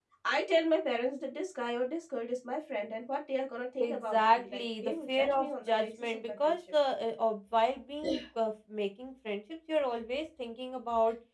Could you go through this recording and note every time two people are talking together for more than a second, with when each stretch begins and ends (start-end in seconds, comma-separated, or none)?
3.8-6.6